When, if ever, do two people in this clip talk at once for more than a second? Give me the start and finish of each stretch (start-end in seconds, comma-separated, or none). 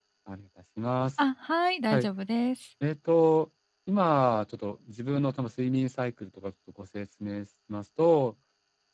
none